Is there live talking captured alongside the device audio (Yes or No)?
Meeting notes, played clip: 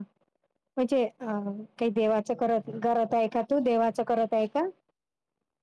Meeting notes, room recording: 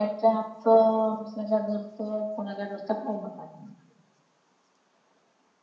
Yes